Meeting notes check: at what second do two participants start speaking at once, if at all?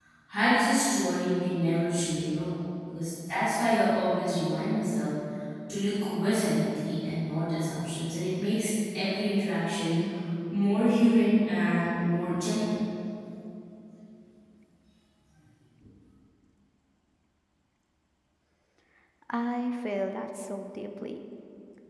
none

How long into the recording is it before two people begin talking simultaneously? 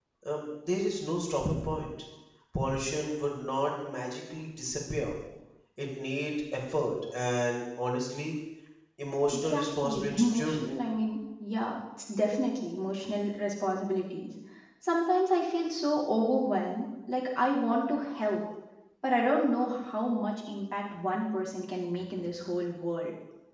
9.3 s

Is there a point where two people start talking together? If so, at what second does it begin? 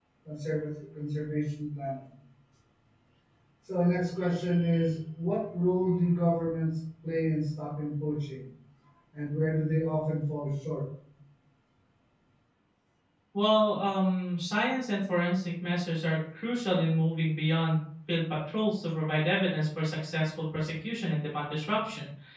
none

